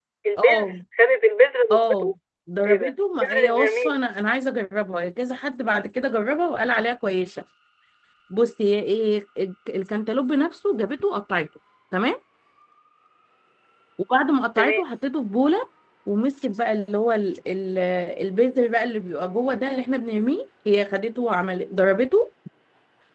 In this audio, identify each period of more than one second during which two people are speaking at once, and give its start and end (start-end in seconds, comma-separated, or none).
2.7-3.9